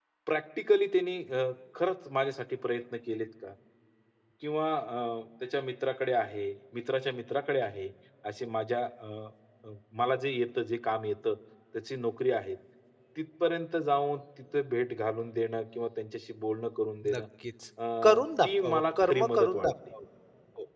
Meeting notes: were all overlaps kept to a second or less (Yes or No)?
No